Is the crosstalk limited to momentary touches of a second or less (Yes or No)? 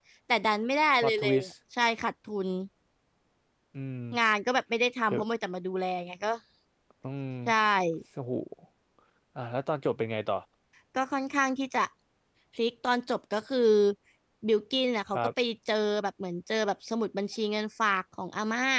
Yes